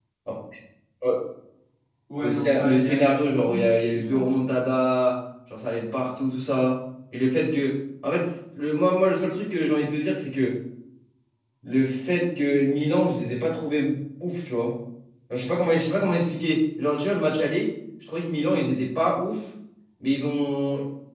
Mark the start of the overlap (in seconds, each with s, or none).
2.2 s